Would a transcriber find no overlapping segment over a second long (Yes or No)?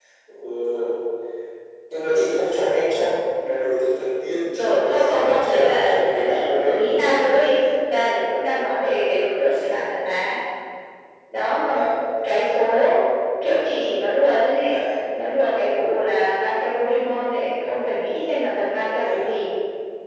No